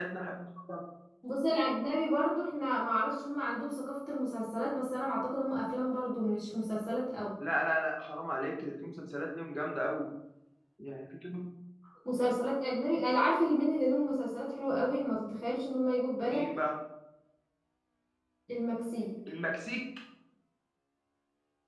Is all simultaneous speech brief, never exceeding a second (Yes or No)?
Yes